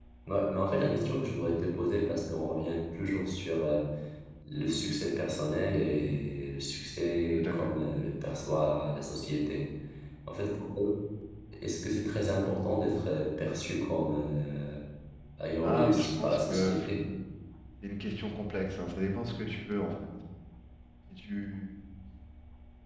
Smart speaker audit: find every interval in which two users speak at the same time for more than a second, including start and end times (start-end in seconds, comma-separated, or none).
15.6-16.9